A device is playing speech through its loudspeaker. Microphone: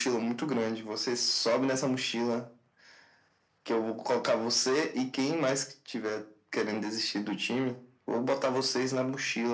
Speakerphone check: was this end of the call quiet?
Yes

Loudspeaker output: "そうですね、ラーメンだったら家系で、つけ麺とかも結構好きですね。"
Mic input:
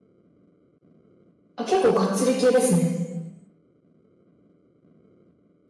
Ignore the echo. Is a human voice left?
Yes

